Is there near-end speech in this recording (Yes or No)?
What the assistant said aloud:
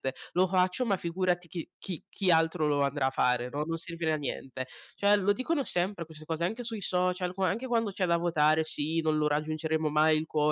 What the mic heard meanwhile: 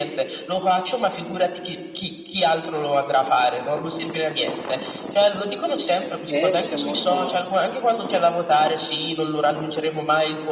Yes